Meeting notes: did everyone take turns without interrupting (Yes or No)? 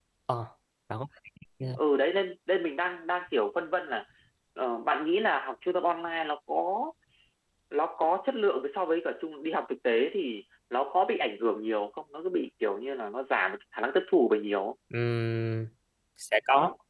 Yes